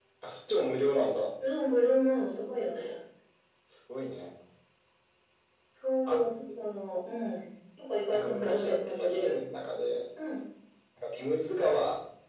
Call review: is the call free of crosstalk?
No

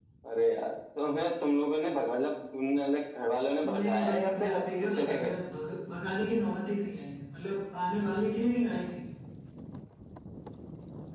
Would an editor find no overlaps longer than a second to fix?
No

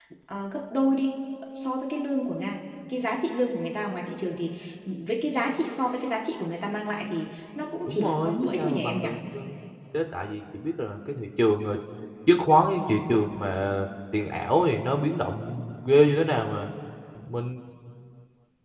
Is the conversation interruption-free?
No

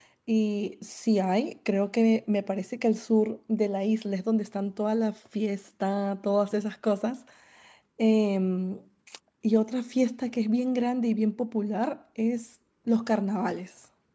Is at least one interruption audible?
No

